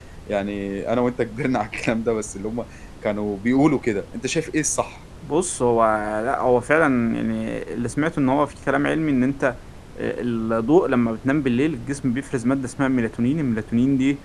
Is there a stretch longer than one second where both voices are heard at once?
No

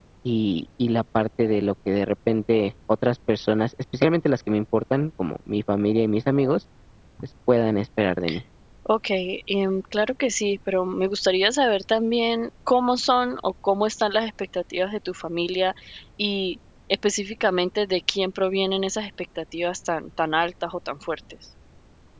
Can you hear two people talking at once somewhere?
No

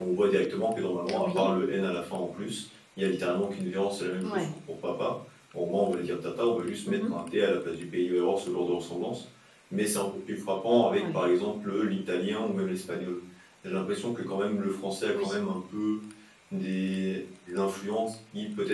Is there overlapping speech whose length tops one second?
No

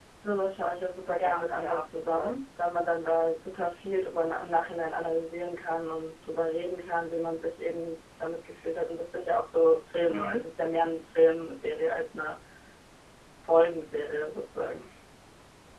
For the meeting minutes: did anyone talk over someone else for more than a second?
Yes, from 1.2 s

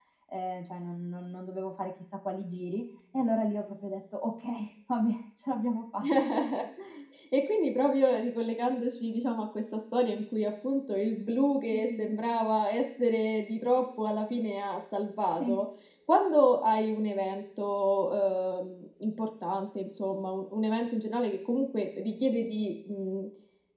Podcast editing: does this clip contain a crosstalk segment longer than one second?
No

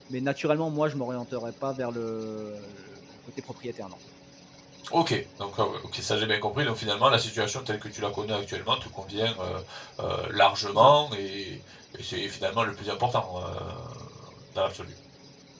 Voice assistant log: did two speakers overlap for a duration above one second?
No

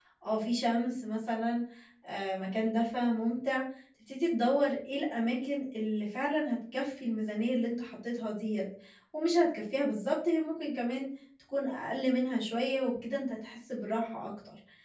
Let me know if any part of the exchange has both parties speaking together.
No

